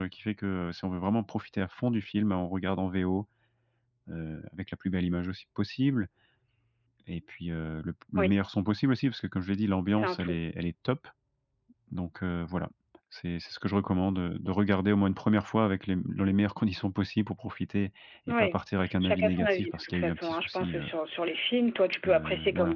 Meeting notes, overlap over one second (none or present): present